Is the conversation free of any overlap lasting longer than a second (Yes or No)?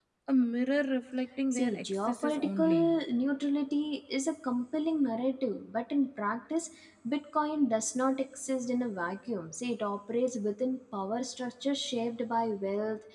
No